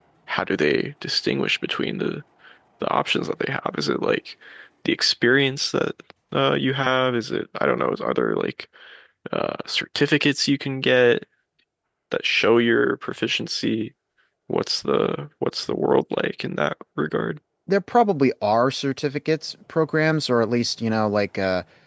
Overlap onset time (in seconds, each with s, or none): none